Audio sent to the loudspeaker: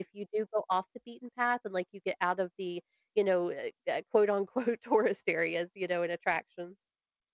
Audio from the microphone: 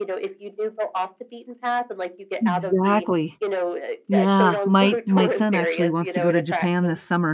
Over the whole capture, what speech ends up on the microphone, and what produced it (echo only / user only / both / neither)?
both